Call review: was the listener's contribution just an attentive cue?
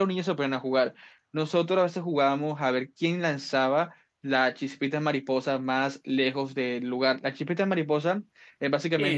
No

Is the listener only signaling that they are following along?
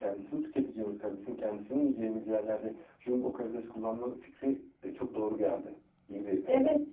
No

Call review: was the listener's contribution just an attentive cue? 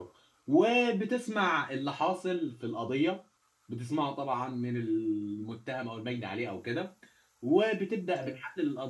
Yes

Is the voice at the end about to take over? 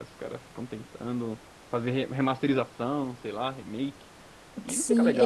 Yes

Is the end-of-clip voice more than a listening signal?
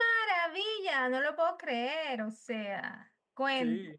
No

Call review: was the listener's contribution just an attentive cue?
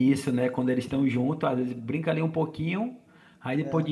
Yes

